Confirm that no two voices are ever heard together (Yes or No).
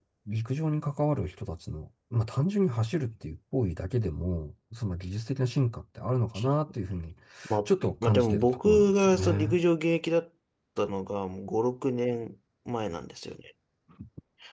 No